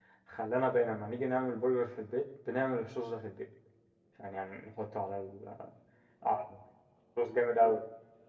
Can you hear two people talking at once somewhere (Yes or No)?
No